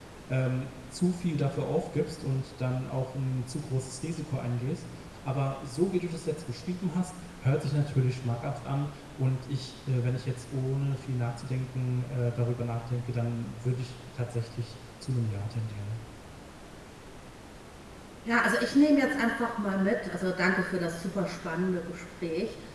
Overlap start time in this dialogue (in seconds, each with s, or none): none